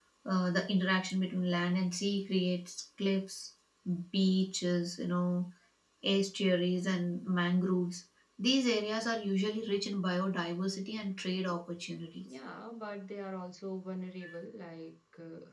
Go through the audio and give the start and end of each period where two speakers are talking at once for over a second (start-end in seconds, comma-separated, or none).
none